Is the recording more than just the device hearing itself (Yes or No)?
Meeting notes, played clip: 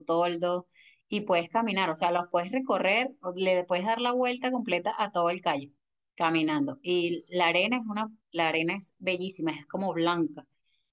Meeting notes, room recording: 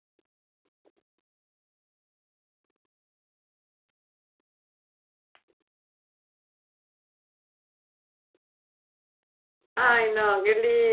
Yes